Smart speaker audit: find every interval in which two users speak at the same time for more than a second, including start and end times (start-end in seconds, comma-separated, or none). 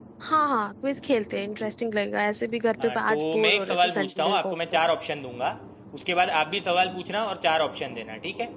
2.8-4.6